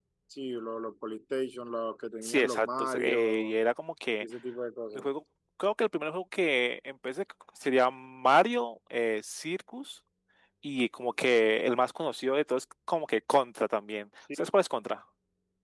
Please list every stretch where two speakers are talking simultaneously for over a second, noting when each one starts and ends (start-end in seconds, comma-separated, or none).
2.2-3.6